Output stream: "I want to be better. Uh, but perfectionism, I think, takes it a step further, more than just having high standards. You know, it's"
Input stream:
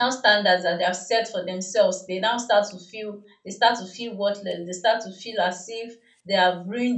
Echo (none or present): none